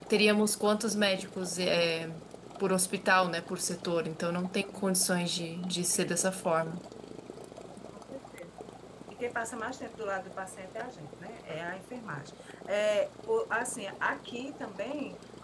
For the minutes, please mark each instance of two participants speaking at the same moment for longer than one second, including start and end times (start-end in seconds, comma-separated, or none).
none